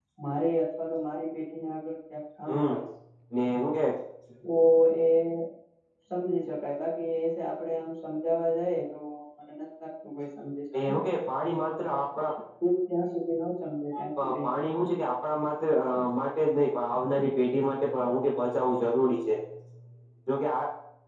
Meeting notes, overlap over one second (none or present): none